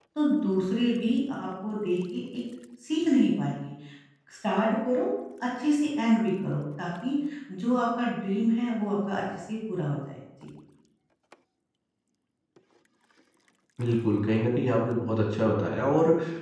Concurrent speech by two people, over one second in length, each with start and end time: none

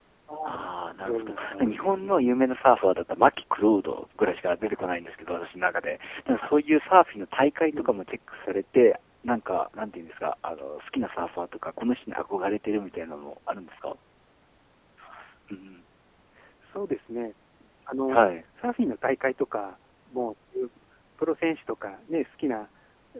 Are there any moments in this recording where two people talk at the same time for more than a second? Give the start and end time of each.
1.0-2.2

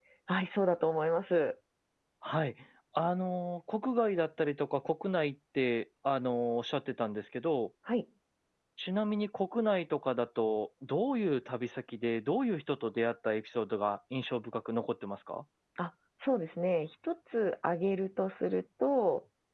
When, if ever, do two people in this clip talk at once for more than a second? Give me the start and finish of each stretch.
none

